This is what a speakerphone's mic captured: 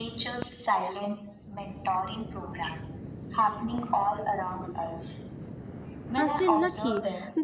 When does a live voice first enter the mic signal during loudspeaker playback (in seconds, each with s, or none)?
6.2 s